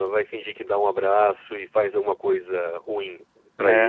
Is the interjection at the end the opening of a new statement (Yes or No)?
Yes